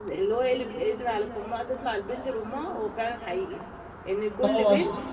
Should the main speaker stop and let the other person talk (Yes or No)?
No